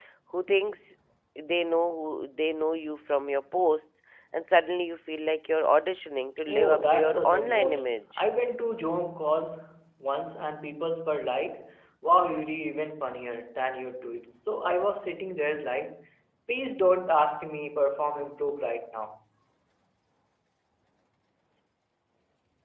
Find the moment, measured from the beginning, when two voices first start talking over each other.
6.5 s

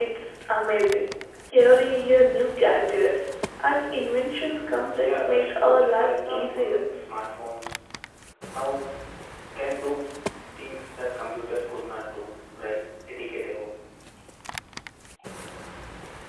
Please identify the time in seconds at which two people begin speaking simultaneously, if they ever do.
5.0 s

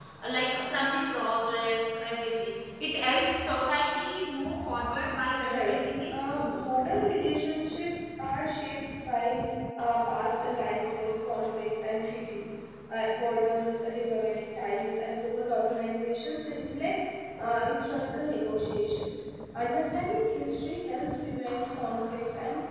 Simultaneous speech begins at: 5.4 s

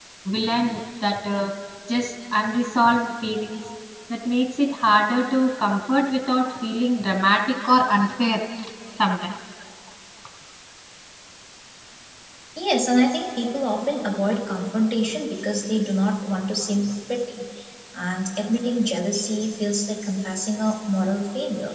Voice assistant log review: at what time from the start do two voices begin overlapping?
none

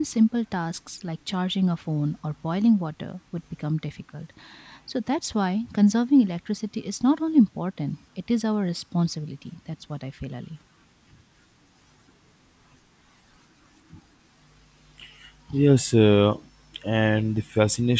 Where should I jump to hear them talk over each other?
none

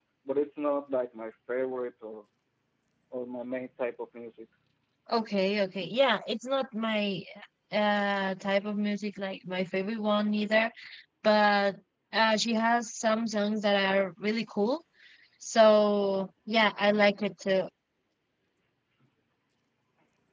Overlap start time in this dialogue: none

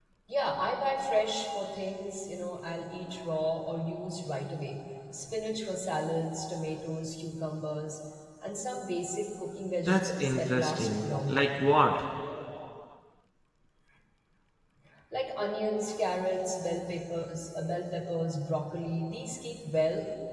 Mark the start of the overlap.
9.9 s

